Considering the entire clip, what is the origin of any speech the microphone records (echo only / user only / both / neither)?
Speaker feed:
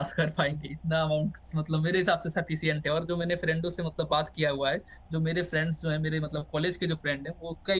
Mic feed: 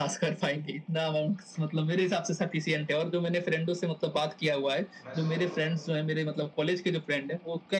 both